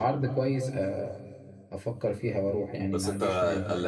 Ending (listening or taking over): taking over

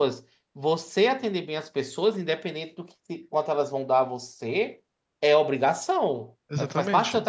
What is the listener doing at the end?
listening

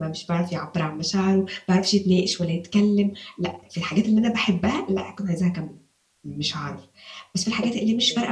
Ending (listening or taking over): listening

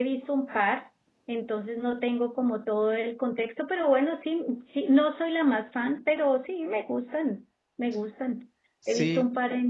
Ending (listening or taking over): listening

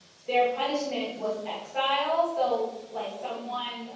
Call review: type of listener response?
listening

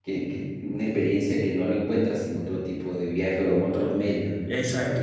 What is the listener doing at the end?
taking over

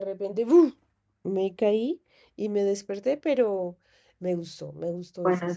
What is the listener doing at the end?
taking over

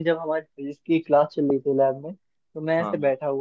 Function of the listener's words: listening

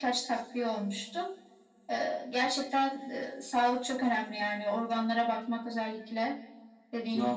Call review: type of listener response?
taking over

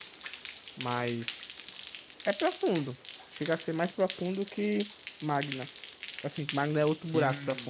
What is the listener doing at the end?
taking over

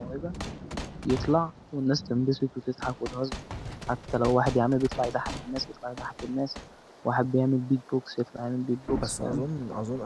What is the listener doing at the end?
taking over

